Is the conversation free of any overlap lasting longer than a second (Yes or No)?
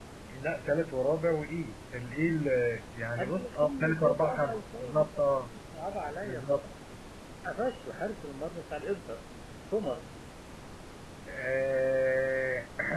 No